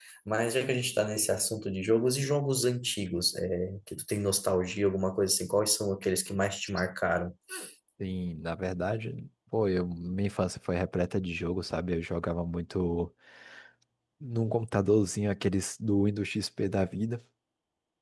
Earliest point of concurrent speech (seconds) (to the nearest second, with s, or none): none